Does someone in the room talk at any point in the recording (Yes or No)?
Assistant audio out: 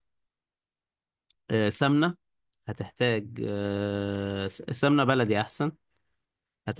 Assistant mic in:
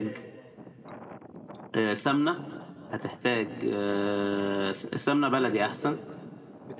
Yes